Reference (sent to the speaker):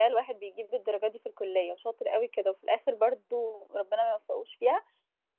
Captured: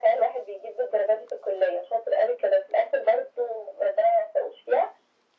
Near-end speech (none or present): none